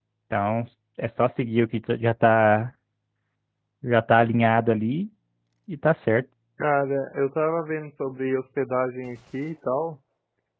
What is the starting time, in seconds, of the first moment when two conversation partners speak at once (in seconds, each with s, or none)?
none